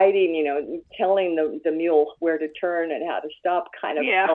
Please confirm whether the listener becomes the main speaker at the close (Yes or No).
No